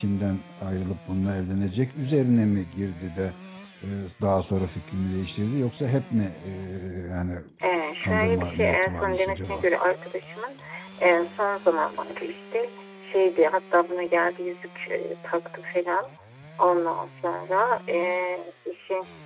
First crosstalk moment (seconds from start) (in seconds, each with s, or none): 8.0 s